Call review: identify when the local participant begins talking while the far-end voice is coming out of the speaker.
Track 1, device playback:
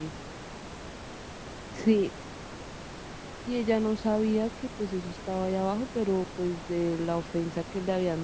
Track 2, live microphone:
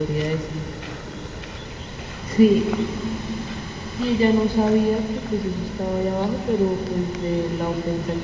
none

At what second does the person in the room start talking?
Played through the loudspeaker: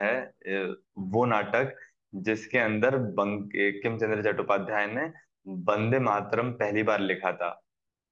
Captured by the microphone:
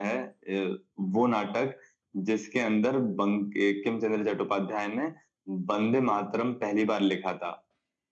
none

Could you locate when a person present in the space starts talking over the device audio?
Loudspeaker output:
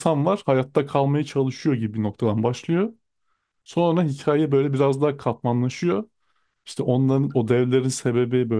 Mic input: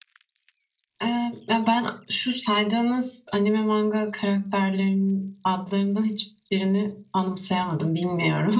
1 s

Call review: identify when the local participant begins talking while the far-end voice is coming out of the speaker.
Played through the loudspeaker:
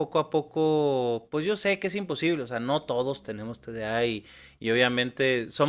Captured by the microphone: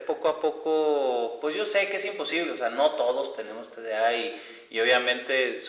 none

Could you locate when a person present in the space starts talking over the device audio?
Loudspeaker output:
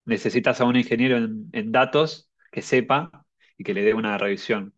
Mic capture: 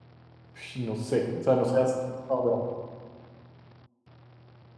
1 s

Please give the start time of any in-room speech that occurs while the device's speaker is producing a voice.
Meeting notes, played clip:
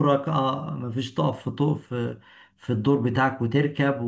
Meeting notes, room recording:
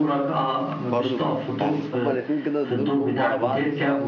1 s

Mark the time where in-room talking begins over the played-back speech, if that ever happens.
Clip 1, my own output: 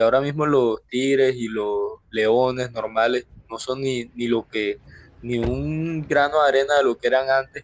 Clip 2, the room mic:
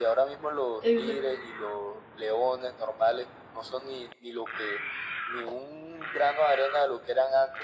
1 s

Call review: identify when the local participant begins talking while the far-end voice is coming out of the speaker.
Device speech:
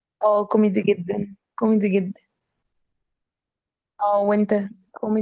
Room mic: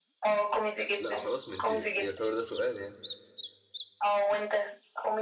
1 s

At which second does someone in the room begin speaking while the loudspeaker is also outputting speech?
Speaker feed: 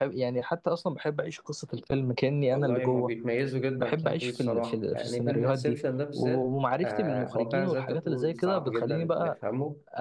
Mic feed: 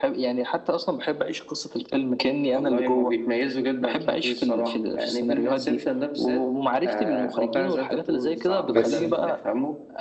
9 s

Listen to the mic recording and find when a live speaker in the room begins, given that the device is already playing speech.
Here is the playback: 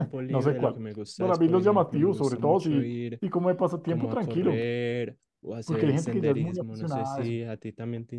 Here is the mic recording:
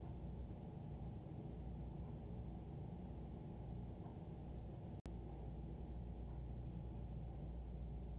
none

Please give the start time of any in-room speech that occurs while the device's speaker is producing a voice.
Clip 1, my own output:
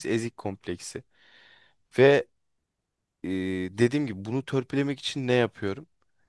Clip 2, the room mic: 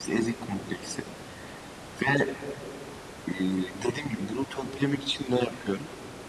none

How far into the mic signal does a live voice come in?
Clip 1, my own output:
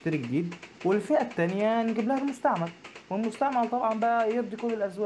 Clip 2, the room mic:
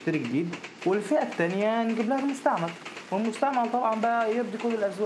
none

